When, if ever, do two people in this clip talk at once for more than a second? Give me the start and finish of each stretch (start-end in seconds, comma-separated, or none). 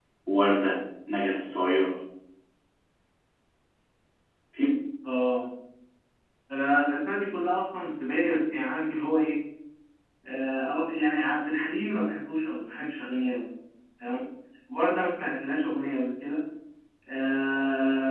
none